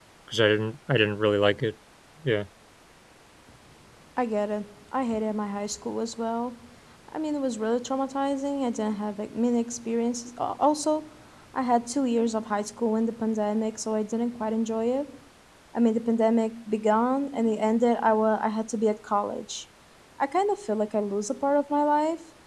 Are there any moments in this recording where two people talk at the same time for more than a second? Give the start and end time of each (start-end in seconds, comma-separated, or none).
none